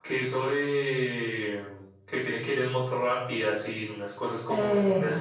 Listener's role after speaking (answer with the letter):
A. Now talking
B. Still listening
B